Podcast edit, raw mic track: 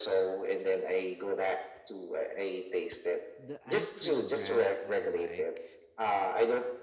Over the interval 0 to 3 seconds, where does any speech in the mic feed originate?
echo only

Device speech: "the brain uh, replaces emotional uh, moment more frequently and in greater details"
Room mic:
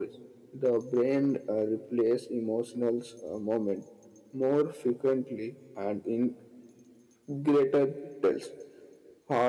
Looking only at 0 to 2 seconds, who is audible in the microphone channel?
echo only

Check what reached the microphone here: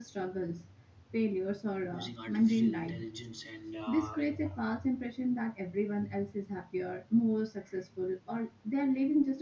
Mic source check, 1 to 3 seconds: both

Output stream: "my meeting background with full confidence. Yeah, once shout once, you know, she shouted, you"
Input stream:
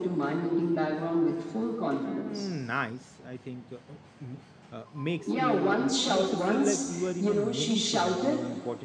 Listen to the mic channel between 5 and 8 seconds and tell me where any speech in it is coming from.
both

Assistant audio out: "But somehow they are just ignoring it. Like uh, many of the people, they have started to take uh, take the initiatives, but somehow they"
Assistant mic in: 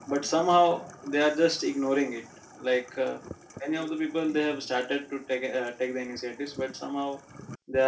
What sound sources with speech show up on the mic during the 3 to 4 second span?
echo only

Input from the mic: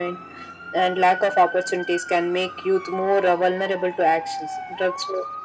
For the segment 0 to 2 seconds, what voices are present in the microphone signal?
echo only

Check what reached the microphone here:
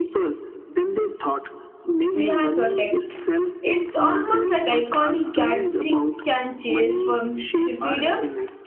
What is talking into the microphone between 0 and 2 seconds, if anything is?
echo only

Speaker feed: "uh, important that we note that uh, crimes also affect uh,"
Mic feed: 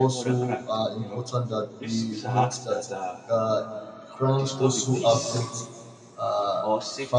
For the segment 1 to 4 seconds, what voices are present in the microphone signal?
both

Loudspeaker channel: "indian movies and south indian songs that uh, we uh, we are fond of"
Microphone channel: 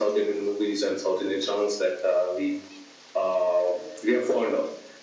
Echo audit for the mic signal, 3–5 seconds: echo only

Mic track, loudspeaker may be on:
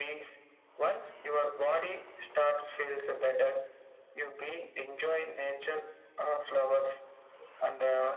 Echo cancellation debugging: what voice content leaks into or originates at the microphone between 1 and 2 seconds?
echo only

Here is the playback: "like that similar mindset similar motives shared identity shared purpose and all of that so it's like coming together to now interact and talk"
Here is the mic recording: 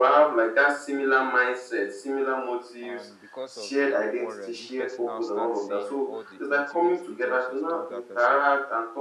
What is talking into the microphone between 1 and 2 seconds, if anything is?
echo only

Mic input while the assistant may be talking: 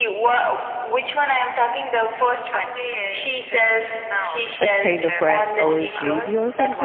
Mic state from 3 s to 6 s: both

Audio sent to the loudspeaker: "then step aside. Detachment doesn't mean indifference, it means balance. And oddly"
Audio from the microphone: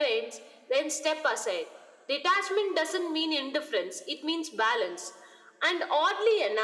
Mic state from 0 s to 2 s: echo only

